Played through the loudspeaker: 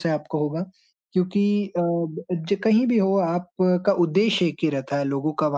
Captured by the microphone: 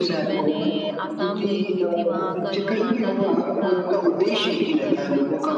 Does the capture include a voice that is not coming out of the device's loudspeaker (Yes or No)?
Yes